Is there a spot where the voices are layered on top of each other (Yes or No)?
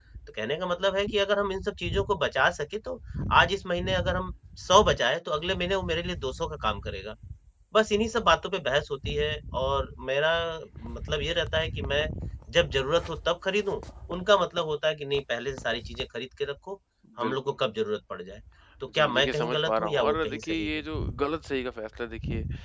Yes